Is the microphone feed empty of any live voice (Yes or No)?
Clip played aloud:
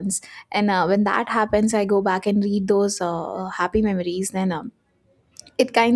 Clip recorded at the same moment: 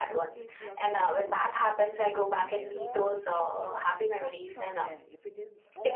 No